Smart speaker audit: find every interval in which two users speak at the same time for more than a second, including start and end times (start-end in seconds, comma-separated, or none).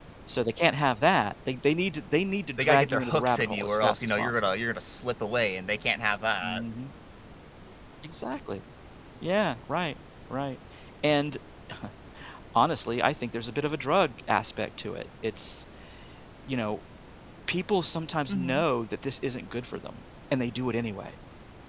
2.6-4.5